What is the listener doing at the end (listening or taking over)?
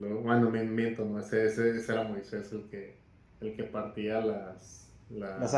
listening